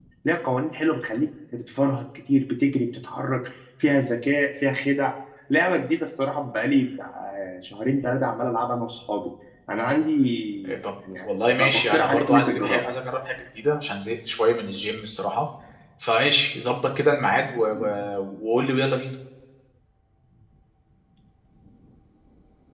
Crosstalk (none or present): present